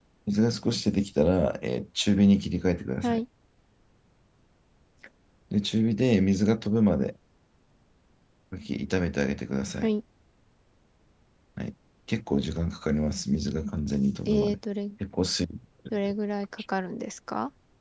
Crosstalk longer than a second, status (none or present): none